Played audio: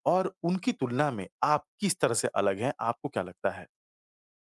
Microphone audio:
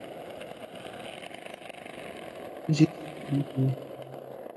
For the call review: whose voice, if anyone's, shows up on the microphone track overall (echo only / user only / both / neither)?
user only